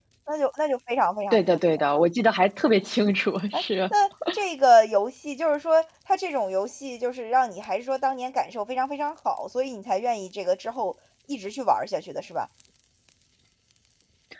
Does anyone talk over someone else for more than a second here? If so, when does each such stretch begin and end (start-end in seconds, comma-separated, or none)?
none